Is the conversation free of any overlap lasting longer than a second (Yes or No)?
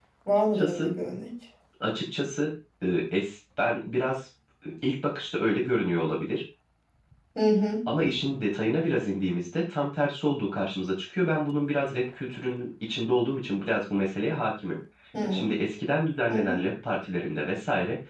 Yes